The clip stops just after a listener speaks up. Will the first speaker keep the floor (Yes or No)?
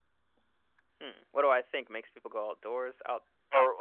No